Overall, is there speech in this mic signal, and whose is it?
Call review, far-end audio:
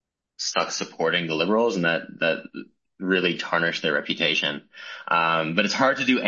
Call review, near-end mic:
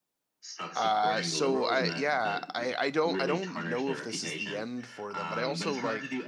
both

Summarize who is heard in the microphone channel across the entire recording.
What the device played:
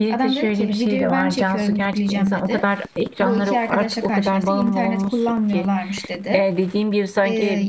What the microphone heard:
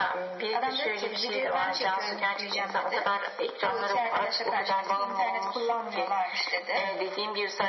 echo only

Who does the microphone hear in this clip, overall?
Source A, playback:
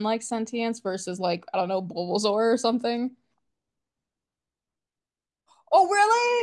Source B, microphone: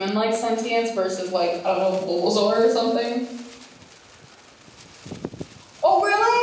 echo only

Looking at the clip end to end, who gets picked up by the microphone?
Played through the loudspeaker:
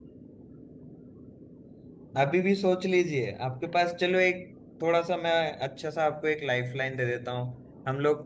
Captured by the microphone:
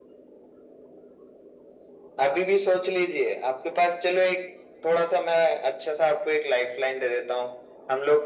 echo only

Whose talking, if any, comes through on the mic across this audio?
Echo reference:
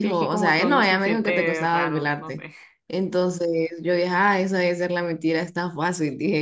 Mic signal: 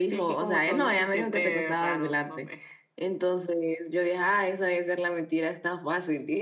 echo only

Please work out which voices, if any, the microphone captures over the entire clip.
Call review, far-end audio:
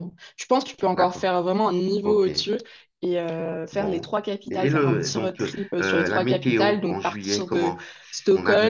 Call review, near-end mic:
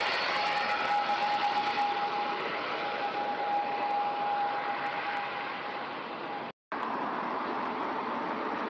neither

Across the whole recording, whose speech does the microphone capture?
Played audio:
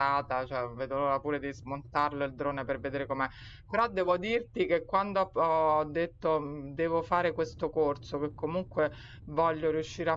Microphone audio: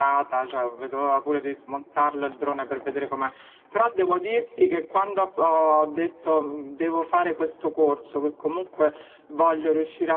echo only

